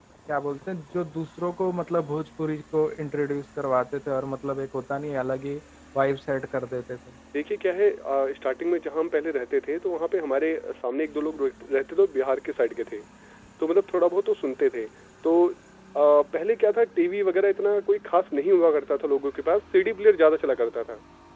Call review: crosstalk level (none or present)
none